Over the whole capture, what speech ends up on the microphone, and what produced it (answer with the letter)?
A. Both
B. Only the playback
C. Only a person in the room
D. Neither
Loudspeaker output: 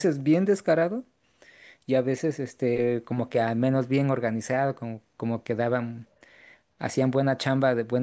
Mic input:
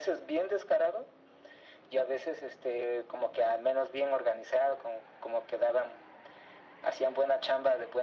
B